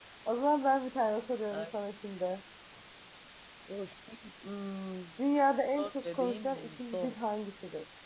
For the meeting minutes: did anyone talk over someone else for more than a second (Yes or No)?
Yes